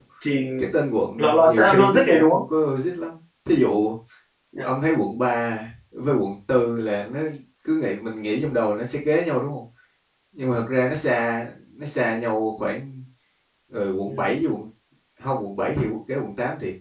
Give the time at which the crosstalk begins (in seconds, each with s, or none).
1.2 s